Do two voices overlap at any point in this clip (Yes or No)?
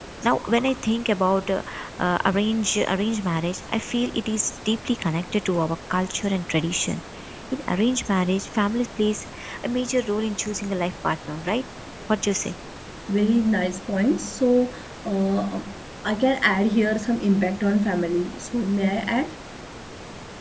No